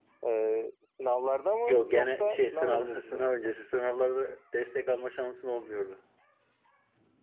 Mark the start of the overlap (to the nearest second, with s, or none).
2 s